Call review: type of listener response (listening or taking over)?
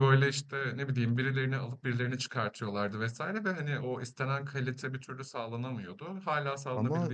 taking over